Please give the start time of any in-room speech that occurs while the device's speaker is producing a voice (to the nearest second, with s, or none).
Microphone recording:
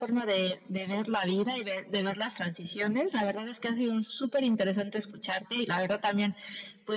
none